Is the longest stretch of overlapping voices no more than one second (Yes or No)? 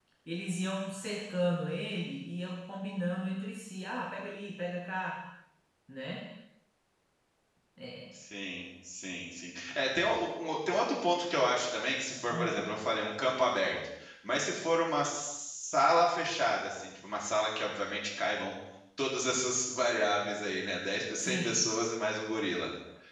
Yes